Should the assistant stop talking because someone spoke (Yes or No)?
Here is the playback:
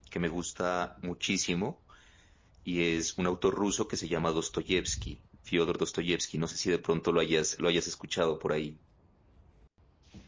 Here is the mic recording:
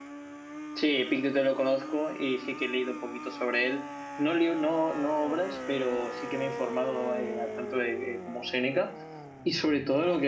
Yes